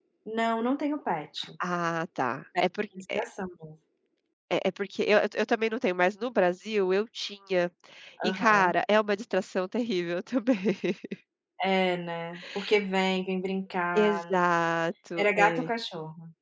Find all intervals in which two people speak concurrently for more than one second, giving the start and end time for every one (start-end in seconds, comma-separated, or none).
none